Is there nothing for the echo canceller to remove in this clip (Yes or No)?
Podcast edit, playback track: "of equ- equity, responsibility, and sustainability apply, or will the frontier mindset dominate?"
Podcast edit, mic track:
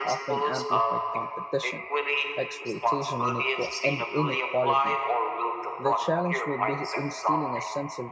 No